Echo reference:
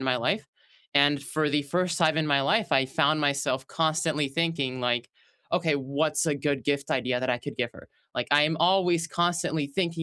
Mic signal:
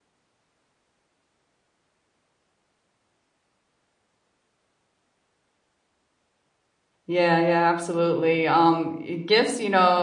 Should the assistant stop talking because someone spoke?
Yes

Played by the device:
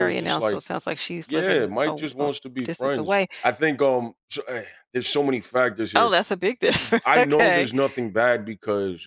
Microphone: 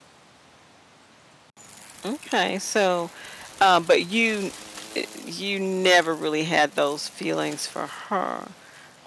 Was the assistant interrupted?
Yes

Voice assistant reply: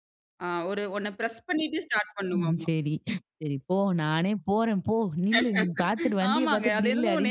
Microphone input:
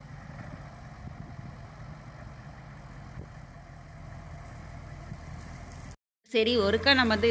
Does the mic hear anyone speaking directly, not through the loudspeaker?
Yes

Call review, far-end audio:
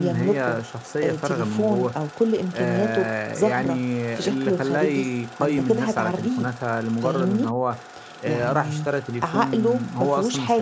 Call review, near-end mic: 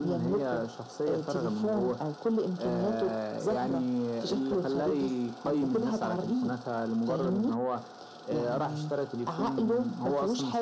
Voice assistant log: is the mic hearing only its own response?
Yes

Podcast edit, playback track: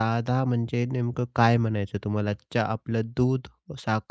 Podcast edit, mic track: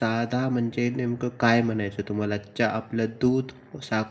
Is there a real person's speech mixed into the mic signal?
No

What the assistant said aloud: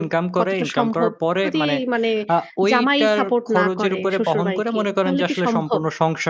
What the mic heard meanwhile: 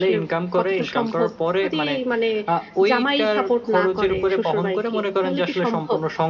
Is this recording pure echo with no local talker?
Yes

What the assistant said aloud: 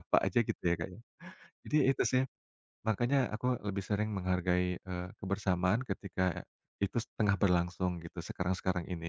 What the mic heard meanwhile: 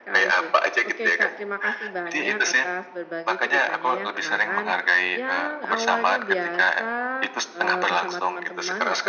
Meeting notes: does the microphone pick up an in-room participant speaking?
Yes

